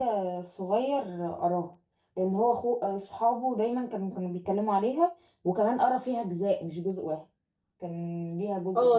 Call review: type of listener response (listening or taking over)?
taking over